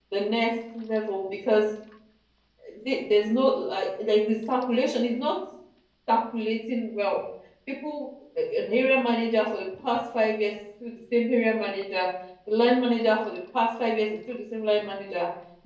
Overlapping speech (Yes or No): No